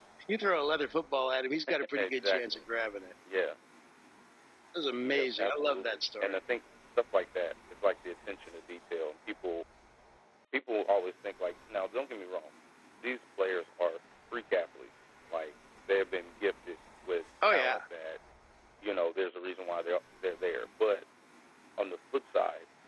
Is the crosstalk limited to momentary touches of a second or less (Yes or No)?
No